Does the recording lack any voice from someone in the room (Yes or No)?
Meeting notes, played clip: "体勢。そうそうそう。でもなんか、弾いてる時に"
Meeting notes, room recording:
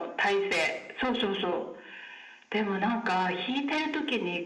Yes